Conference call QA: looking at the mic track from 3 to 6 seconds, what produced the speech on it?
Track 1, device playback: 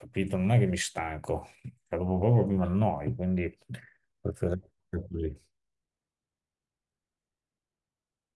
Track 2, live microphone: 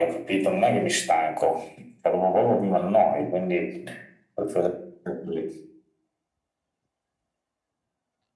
echo only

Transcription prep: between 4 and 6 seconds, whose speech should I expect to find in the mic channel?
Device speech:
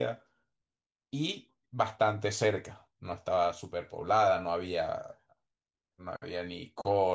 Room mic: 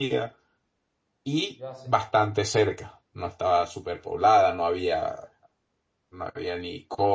echo only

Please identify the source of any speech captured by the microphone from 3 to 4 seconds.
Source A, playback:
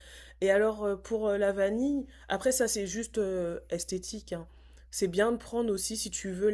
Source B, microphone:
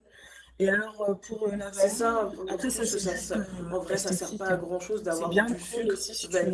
both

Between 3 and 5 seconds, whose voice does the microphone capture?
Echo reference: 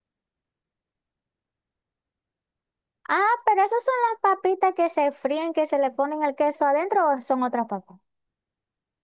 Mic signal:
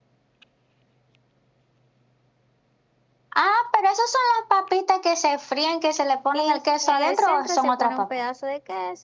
echo only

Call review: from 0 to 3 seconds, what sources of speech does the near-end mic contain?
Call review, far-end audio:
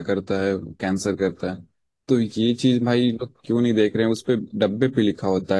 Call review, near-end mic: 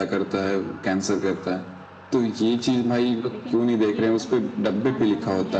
echo only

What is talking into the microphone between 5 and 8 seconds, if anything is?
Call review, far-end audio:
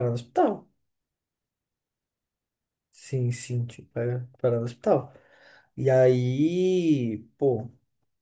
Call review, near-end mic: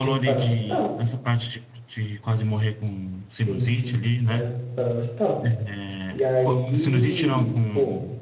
both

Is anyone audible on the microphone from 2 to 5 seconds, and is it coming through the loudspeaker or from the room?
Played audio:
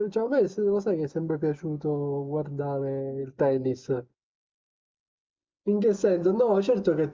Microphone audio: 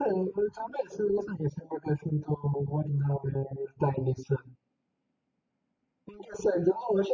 echo only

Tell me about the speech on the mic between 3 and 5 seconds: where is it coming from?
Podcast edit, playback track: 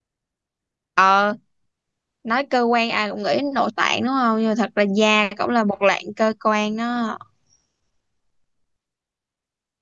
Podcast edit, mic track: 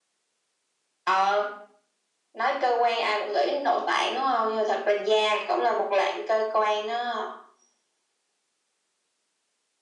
echo only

